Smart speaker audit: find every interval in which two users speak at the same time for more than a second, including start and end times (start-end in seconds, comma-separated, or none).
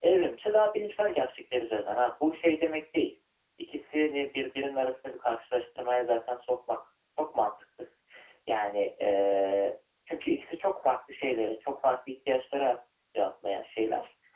none